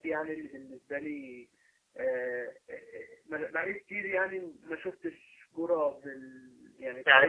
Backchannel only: No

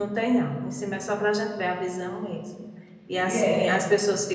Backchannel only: Yes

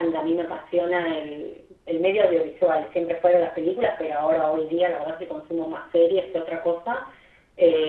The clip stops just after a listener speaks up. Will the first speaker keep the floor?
Yes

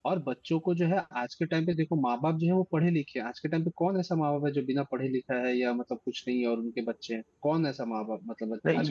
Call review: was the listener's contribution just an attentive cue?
No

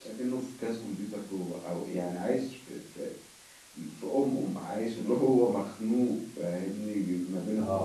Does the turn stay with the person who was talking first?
Yes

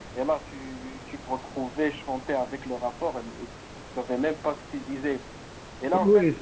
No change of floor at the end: Yes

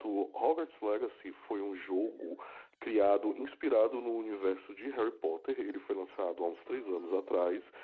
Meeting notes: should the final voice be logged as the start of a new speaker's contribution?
No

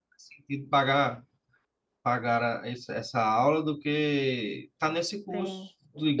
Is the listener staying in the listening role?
No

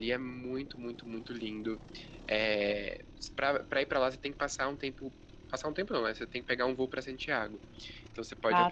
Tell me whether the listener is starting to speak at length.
No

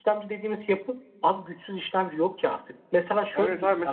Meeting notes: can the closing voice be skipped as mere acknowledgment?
No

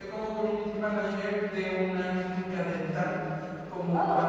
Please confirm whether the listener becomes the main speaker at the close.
No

